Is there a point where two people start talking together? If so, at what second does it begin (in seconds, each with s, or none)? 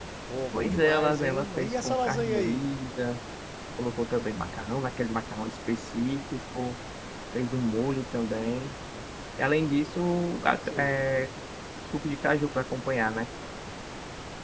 0.5 s